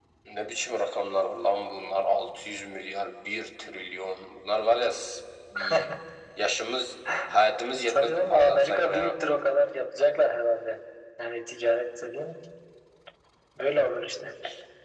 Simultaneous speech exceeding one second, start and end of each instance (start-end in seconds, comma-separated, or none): 7.9-9.2